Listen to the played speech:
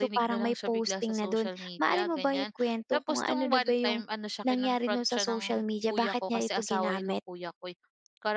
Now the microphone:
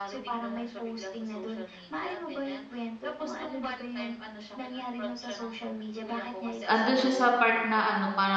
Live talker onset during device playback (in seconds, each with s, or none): 6.7 s